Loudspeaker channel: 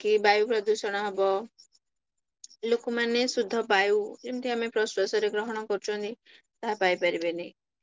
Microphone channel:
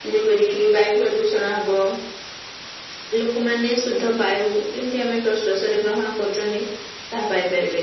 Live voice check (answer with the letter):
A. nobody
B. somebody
A